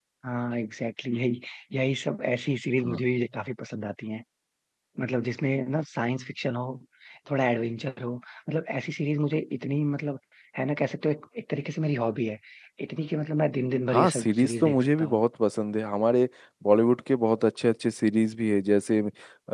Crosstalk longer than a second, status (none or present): present